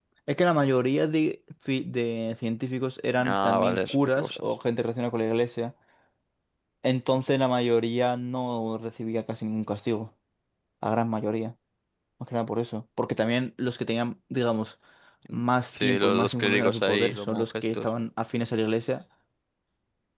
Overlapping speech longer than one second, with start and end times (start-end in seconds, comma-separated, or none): 3.2-4.5, 15.8-17.9